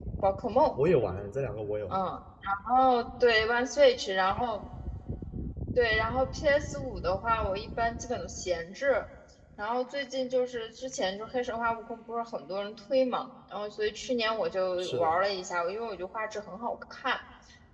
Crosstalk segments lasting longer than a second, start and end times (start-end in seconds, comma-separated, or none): none